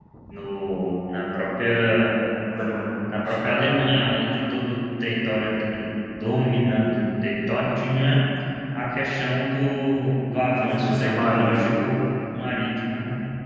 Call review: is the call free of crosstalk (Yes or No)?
No